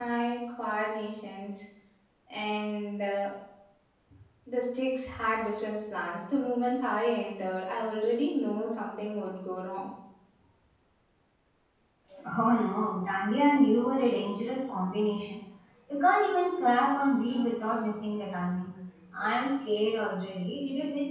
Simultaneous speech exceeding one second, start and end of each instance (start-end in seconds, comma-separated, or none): none